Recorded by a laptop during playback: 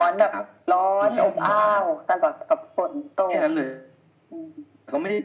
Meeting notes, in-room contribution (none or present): none